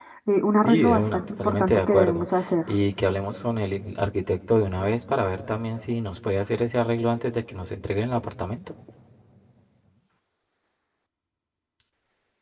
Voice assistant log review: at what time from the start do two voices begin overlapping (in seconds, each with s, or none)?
0.7 s